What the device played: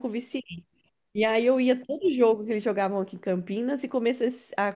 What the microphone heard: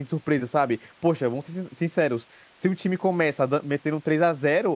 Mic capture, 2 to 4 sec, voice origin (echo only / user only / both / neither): user only